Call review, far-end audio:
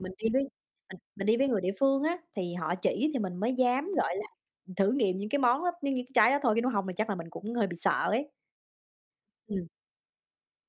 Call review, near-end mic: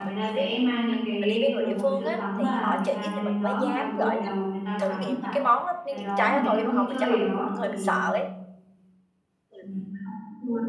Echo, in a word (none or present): present